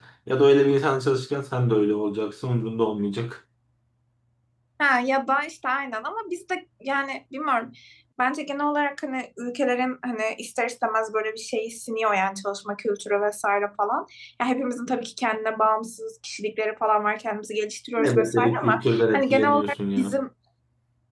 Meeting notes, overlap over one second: present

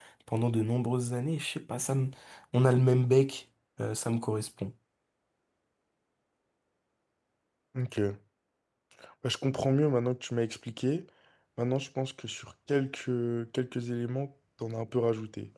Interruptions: none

